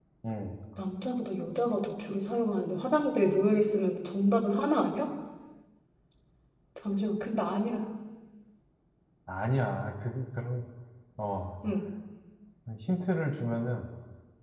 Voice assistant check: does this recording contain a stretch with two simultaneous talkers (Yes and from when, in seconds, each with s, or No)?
No